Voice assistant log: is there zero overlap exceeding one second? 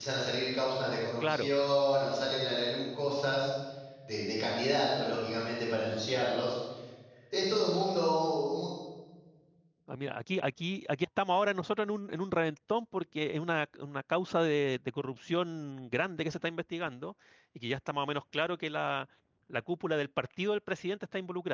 Yes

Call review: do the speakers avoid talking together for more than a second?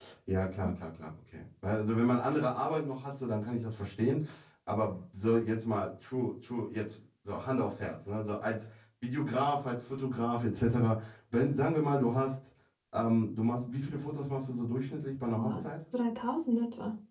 Yes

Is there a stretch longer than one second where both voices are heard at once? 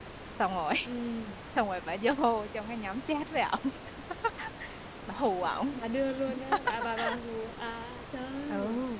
No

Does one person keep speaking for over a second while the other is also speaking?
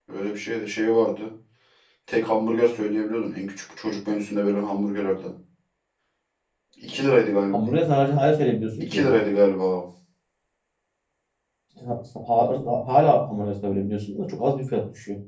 No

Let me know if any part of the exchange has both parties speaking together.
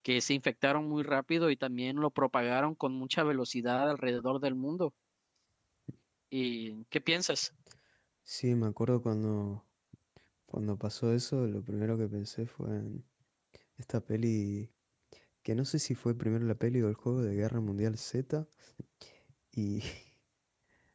No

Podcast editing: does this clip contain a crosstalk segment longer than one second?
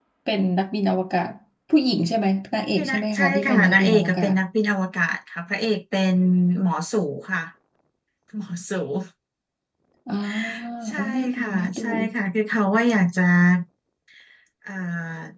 Yes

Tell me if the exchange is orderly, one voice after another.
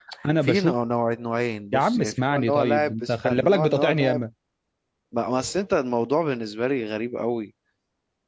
No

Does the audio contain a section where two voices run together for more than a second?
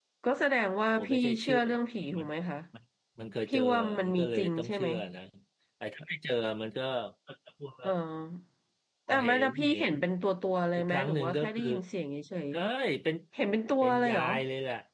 Yes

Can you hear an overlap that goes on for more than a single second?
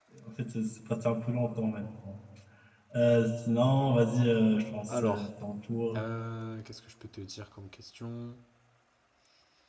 No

